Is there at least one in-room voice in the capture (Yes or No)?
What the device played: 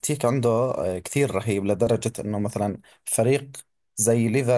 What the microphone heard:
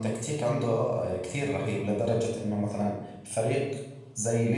No